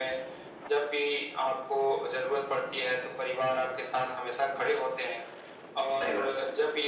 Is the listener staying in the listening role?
Yes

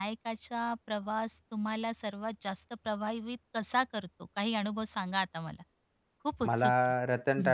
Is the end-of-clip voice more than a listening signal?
Yes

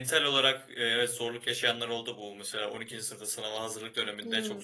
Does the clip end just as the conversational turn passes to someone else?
No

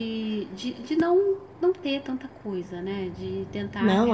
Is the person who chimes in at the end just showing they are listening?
No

